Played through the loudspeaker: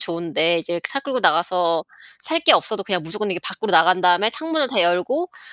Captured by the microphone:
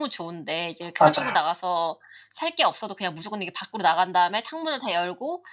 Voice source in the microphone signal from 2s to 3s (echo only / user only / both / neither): echo only